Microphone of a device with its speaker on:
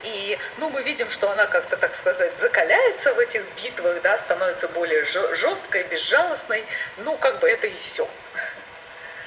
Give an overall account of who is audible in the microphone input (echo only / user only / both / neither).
echo only